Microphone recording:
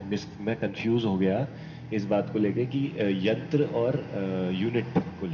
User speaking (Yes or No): No